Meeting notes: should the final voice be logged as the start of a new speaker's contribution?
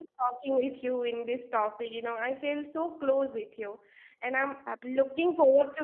No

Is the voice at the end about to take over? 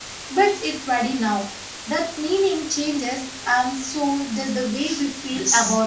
Yes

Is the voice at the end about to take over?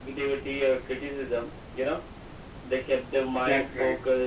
No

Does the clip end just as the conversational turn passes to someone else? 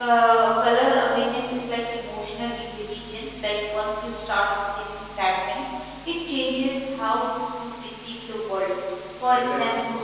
Yes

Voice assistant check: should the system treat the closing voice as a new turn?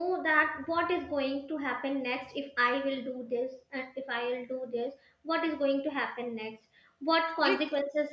No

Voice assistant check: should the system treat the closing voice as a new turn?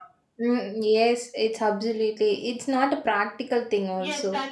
Yes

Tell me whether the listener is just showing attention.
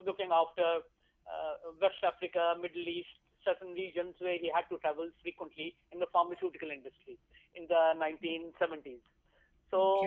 Yes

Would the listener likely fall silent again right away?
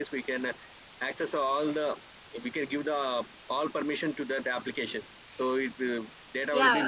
No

